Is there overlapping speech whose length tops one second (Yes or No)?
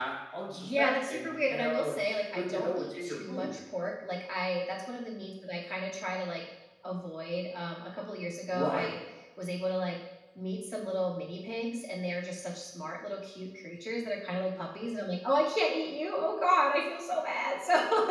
Yes